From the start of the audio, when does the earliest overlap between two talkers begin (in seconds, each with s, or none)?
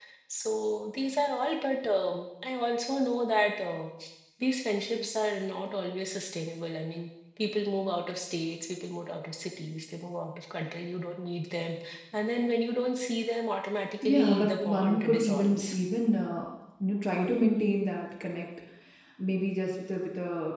14.0 s